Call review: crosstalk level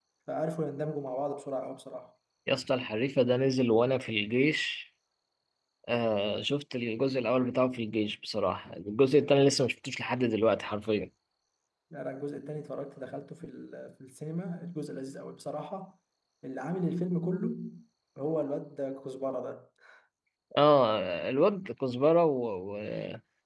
none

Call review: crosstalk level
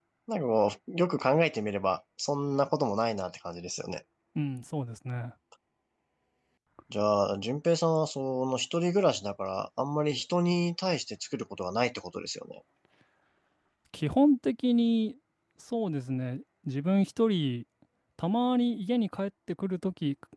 none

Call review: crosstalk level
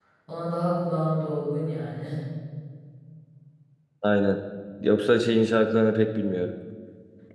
none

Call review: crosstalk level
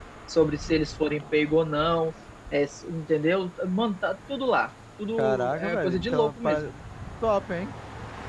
present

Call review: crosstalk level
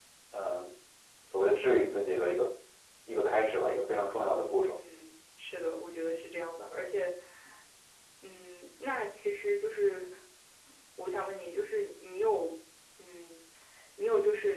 none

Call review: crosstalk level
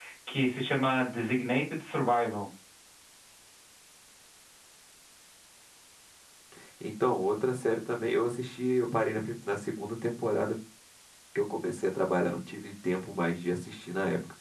none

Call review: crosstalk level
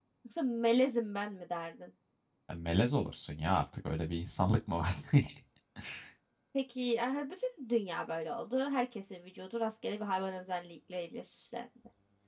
none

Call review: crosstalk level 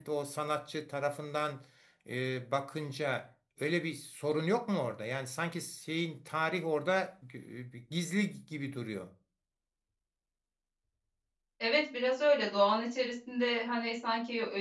none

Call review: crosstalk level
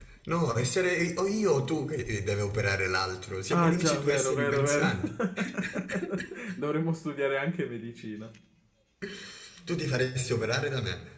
present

